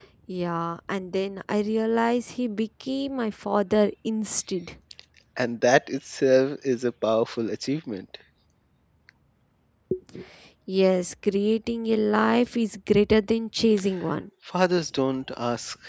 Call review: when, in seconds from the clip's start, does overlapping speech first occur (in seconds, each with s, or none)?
none